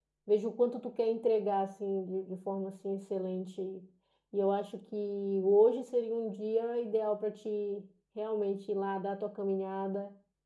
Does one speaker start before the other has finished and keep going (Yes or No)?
No